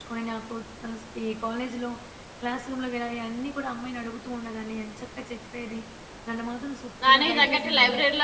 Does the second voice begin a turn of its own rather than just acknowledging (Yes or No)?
Yes